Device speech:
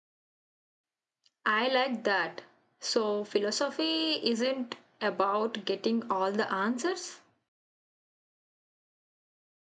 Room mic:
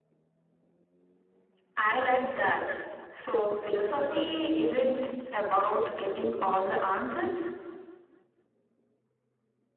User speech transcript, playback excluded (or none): none